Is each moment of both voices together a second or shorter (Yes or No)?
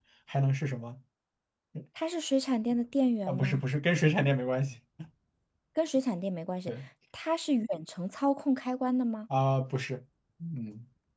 Yes